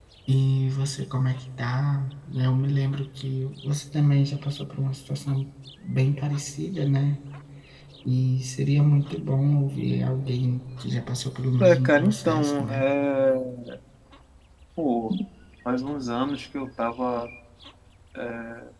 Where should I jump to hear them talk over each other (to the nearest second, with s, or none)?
12 s